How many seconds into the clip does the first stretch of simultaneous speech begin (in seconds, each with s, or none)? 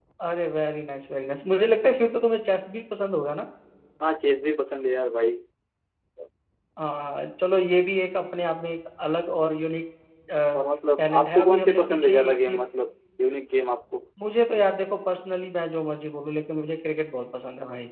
11.0 s